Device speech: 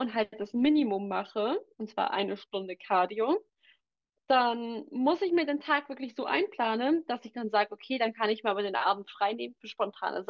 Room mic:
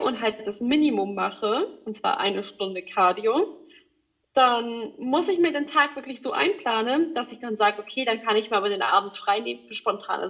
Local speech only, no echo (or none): none